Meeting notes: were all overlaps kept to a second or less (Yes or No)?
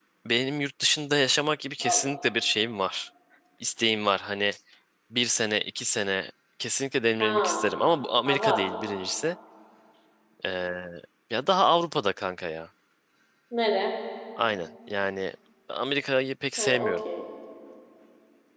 Yes